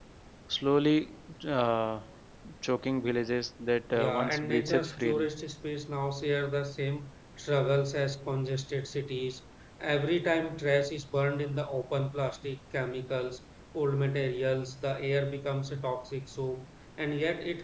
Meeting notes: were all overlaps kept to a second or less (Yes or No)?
No